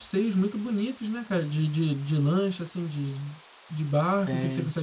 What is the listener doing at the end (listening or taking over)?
listening